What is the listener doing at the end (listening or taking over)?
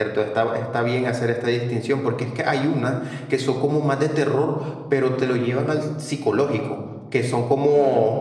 listening